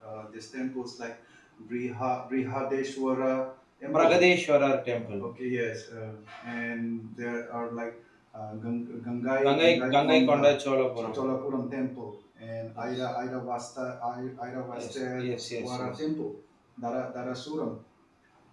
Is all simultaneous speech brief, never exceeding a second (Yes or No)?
No